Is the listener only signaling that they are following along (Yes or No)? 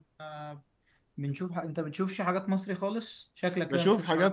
No